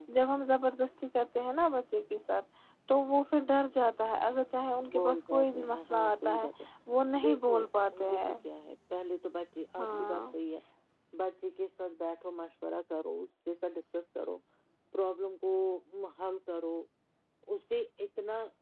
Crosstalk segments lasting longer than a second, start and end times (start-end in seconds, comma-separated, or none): 4.9-6.5